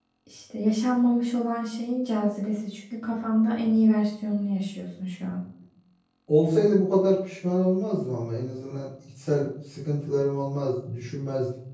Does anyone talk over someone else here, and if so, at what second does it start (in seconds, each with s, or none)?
none